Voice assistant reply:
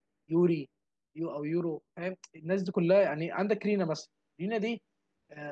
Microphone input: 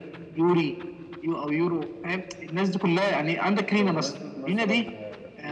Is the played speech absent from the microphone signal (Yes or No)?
No